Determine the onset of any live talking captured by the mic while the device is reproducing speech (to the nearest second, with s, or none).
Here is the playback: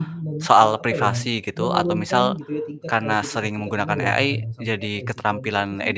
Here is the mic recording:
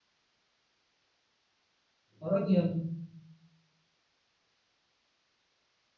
2 s